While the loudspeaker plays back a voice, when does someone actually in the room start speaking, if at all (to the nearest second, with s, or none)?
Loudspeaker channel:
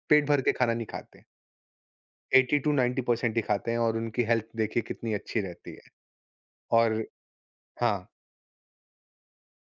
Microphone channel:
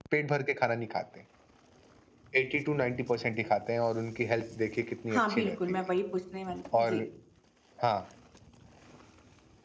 5 s